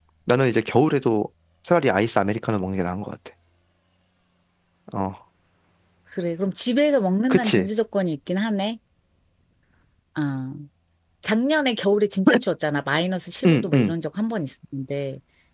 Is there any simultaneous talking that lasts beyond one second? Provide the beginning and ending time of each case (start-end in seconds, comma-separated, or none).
none